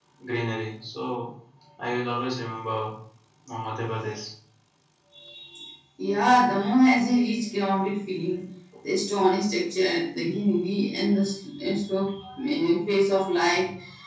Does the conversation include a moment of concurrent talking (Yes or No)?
No